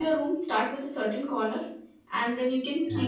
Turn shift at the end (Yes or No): No